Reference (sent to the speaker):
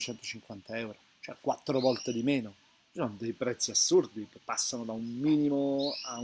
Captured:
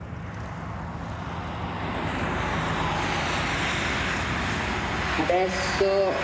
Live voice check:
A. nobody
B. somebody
B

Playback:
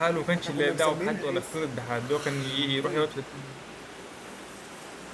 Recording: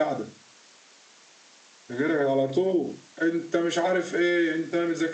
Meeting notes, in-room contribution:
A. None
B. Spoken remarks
B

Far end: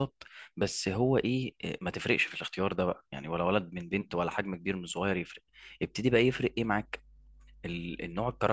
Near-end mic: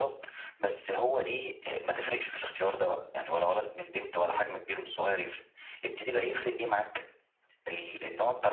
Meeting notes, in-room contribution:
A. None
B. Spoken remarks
A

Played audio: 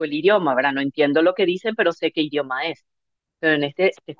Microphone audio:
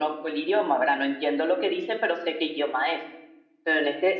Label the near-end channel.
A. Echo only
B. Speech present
A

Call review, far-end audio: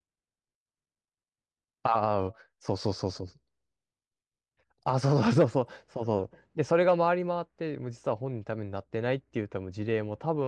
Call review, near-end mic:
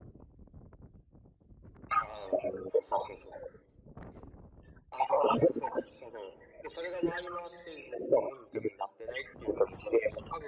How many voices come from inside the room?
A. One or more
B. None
B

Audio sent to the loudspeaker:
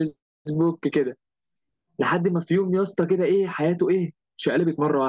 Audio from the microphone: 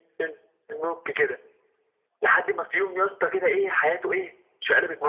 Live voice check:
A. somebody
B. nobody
B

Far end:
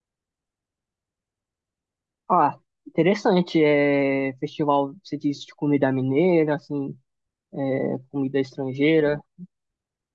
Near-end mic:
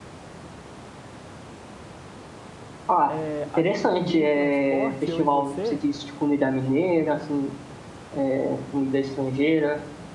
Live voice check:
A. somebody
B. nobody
A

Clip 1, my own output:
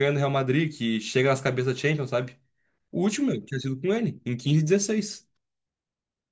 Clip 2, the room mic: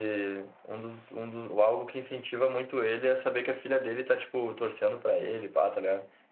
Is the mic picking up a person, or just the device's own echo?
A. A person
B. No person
A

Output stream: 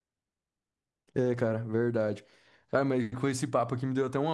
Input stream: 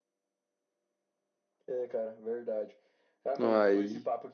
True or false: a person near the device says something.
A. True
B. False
A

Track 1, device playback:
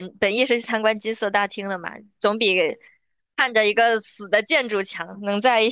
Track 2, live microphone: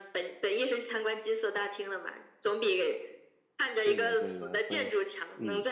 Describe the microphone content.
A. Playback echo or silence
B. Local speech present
B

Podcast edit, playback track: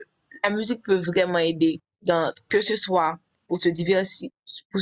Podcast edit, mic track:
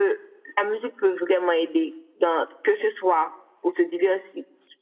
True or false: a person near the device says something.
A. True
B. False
B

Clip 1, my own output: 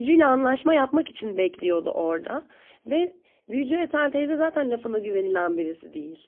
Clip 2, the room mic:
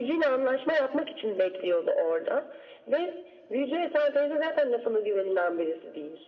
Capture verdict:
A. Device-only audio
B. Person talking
A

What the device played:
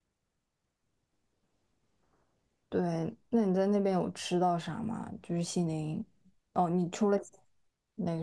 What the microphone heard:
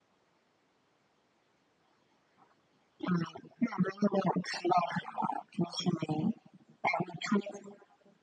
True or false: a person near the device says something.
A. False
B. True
A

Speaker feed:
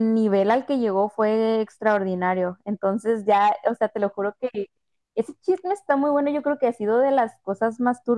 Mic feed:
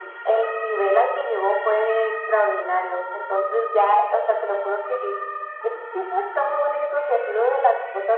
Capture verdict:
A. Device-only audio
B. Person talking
A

